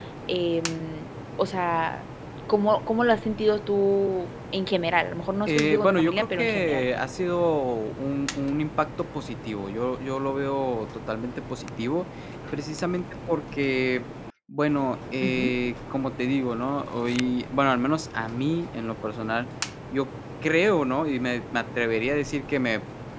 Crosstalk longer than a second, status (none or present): present